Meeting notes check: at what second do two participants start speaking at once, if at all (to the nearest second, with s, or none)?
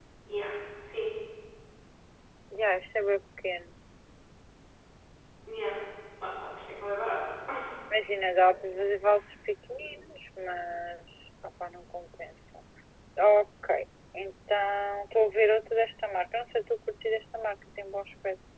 none